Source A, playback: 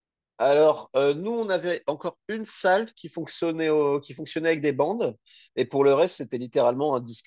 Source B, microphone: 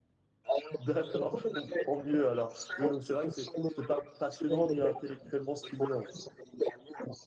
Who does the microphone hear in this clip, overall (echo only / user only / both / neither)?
both